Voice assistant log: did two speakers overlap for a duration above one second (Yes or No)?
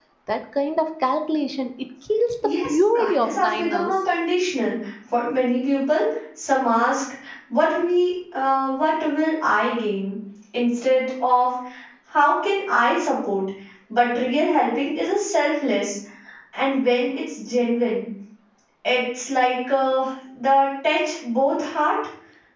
Yes